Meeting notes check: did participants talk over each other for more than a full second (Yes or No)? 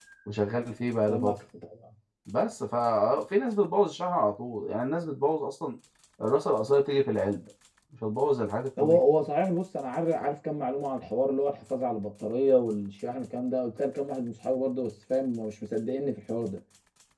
No